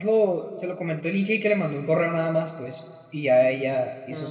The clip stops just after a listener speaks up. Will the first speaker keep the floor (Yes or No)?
No